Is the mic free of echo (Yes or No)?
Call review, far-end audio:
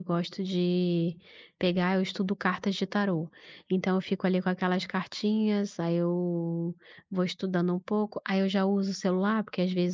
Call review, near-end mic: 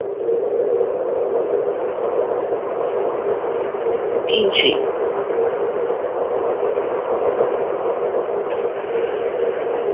Yes